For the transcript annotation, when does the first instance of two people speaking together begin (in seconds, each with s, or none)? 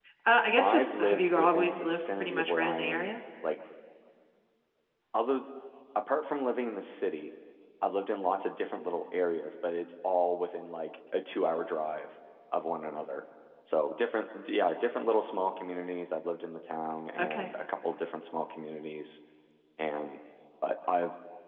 0.6 s